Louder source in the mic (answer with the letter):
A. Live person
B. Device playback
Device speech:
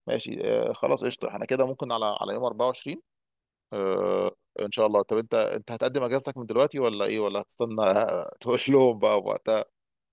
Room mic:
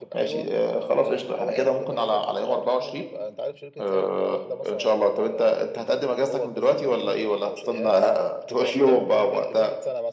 B